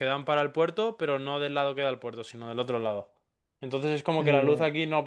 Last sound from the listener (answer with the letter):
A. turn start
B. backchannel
B